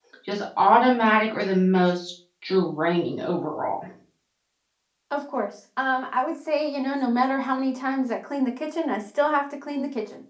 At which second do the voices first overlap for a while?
none

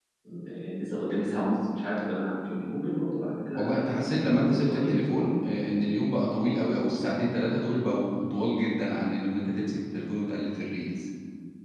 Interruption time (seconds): 3.5 s

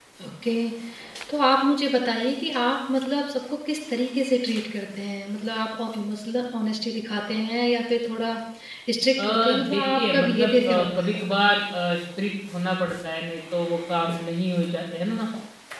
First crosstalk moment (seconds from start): 9.2 s

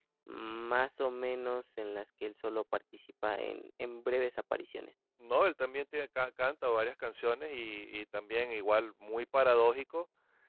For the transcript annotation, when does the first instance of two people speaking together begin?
none

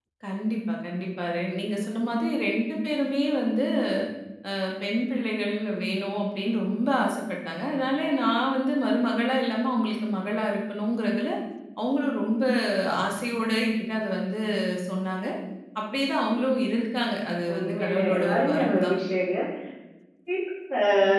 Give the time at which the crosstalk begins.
17.5 s

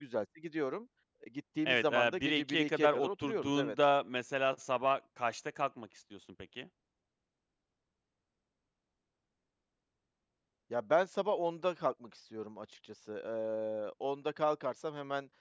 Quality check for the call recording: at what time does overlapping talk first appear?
1.6 s

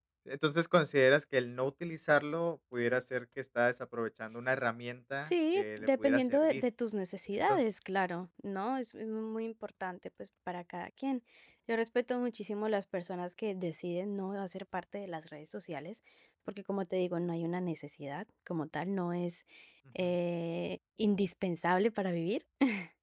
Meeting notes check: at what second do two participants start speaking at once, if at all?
5.2 s

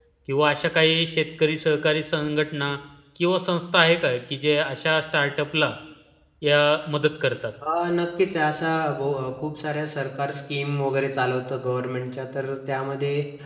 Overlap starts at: none

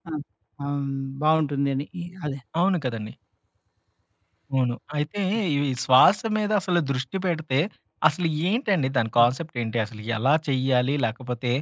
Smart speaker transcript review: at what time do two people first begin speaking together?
none

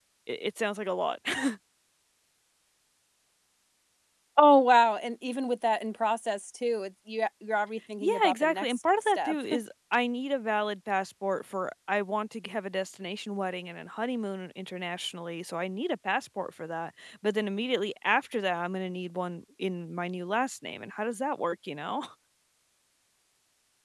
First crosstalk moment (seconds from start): 8.0 s

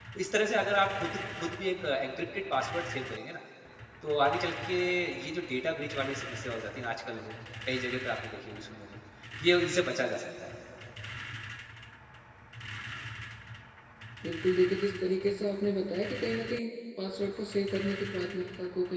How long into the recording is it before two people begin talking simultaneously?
none

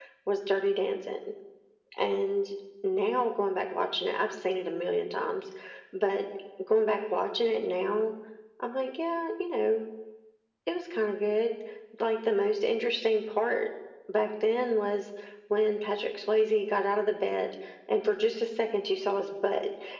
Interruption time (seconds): none

